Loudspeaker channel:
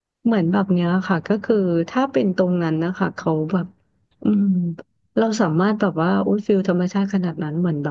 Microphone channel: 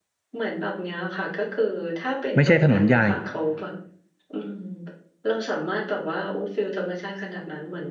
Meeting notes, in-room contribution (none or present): present